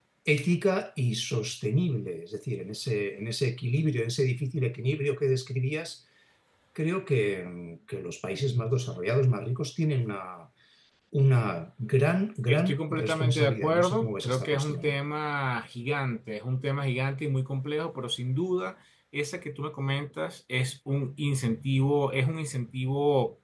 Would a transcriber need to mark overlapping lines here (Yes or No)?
Yes